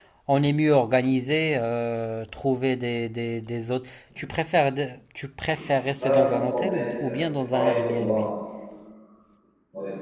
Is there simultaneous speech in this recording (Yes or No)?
Yes